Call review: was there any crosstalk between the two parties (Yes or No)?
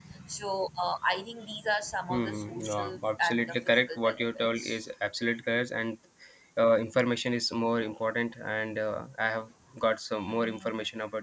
Yes